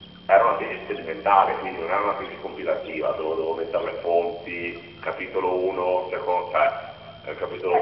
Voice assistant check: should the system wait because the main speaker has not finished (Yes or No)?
No